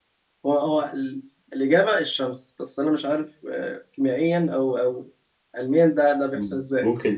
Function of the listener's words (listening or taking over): taking over